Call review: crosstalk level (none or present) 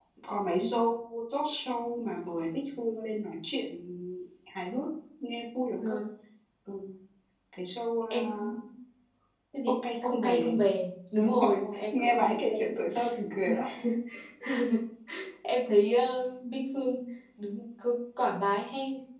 present